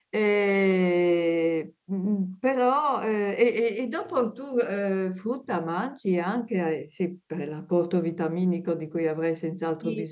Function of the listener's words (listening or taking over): taking over